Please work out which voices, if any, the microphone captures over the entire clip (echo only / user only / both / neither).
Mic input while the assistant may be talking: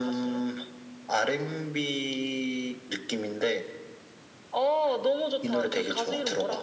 echo only